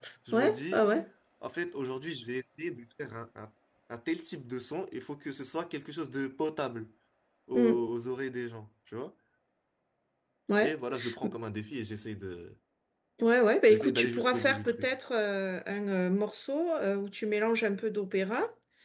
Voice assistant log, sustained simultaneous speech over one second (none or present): present